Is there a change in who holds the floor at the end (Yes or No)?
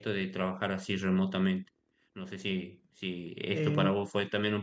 No